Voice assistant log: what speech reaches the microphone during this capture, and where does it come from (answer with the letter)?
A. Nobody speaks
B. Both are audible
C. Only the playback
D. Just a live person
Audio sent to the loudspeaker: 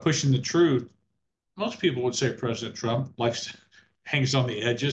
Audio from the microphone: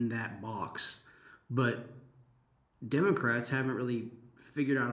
D